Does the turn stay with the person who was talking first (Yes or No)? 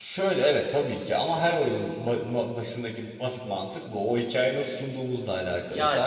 Yes